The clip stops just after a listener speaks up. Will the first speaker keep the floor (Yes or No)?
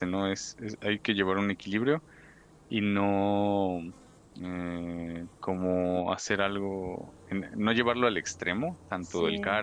Yes